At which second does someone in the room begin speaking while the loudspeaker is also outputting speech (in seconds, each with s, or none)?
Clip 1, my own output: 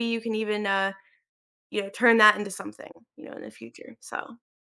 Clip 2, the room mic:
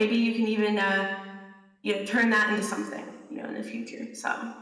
none